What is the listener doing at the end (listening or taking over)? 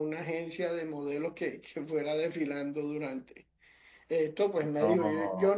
listening